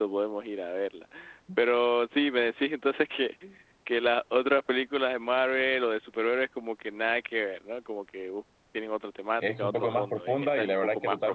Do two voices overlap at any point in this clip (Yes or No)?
Yes